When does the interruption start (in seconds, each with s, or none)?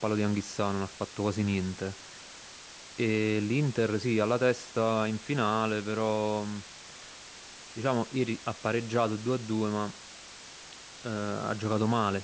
none